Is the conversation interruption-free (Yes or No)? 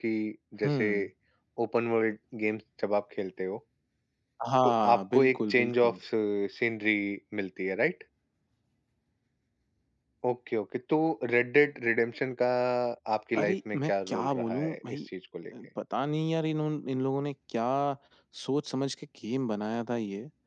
No